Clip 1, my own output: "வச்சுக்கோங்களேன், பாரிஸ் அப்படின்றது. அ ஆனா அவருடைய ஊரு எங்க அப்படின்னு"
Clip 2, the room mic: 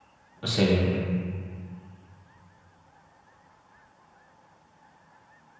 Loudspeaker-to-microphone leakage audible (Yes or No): No